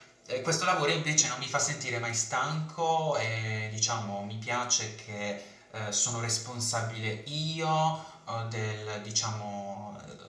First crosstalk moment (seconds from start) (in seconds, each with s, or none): none